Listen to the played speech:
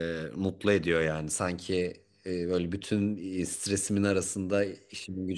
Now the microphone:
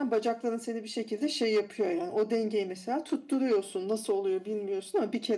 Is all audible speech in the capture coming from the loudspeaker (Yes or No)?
No